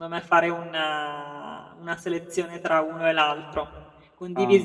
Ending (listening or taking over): listening